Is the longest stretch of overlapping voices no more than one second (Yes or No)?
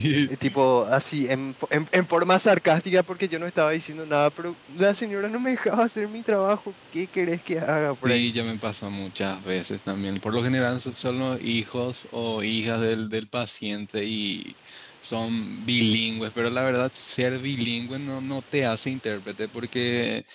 Yes